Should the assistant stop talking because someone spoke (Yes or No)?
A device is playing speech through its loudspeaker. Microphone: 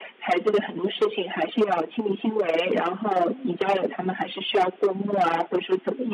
No